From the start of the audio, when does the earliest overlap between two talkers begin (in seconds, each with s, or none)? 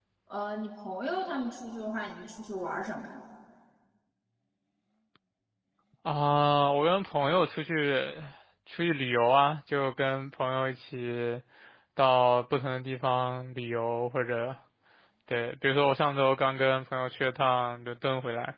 none